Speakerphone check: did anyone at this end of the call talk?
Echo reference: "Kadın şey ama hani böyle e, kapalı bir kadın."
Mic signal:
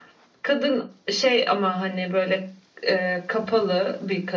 No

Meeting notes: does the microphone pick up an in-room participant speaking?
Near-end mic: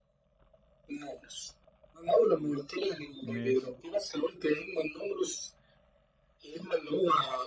Yes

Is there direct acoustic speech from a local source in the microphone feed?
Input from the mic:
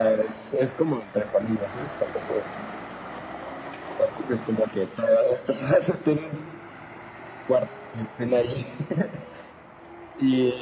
No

